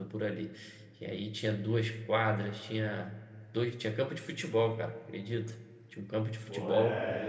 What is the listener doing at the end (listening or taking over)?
taking over